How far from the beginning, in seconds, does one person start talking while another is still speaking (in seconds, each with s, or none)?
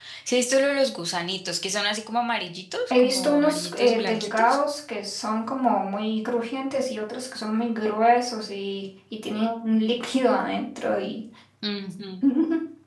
2.9 s